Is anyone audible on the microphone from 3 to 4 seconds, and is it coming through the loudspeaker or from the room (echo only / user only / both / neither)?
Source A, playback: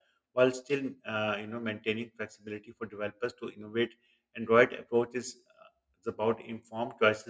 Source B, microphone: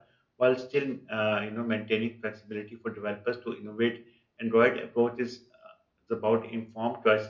echo only